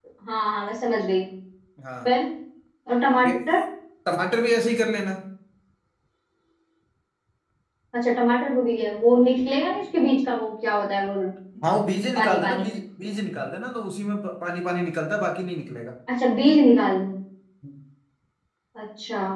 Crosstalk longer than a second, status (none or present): none